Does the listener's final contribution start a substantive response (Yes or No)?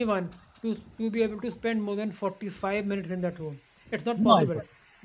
No